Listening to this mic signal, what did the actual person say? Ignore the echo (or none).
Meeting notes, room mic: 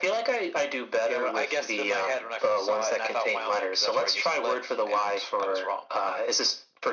none